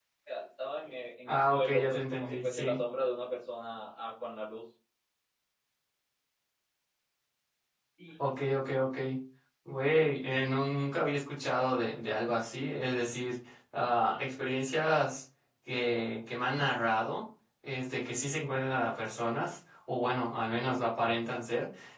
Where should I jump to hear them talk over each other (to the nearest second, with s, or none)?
1 s